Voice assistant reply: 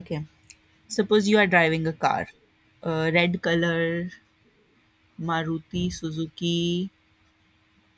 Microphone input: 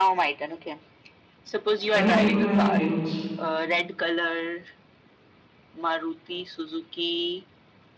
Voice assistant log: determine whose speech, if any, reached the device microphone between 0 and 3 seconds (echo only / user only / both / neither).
both